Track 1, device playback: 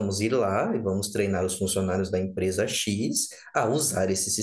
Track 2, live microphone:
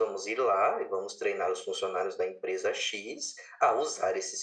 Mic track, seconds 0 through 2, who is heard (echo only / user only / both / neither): echo only